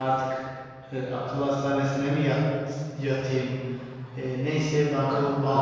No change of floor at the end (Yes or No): Yes